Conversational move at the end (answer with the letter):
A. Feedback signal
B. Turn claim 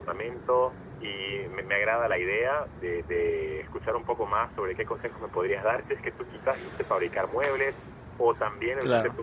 A